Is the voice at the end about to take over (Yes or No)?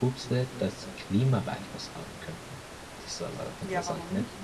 Yes